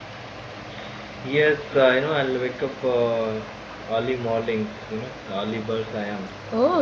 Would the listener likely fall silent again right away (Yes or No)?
No